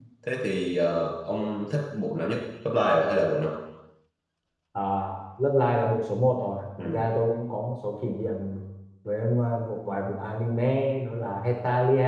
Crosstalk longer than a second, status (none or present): none